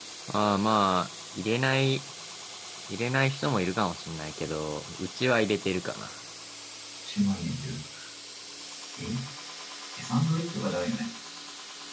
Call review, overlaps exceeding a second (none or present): none